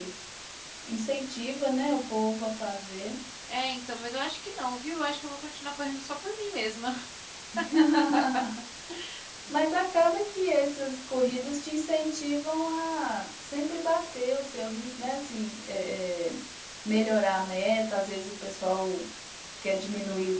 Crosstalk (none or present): none